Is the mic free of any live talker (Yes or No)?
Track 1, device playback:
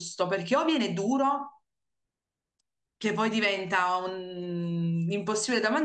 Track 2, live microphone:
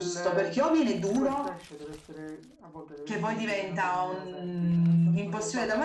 No